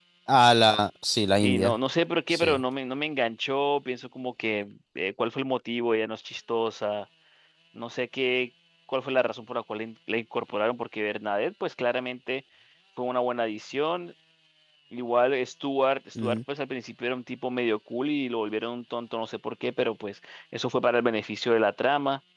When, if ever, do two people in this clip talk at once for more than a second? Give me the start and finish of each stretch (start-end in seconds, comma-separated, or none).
none